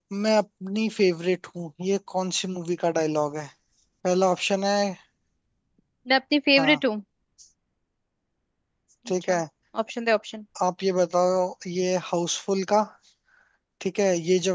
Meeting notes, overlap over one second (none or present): none